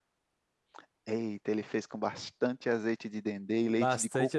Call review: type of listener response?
taking over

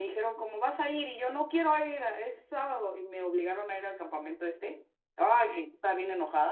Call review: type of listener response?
listening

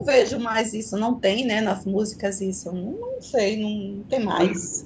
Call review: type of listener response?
taking over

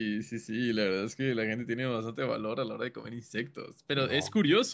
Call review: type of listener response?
listening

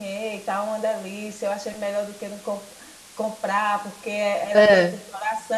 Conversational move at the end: listening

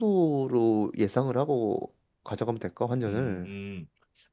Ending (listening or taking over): taking over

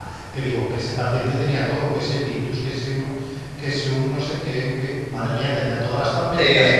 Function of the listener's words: taking over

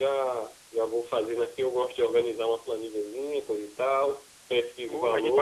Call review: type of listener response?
taking over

